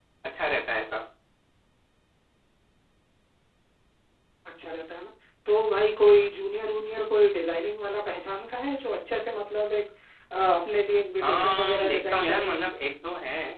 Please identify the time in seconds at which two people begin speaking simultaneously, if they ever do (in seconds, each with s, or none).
11.2 s